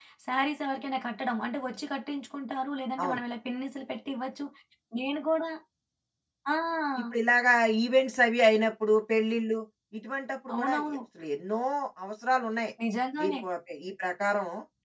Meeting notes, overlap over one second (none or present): none